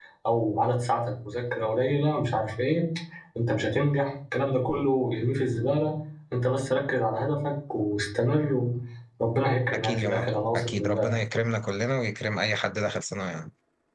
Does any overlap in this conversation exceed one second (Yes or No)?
Yes